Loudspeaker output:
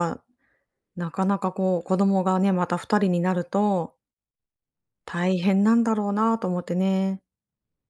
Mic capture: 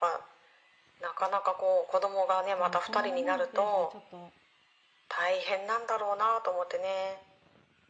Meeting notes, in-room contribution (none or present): present